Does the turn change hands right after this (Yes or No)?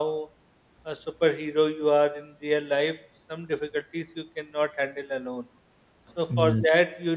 No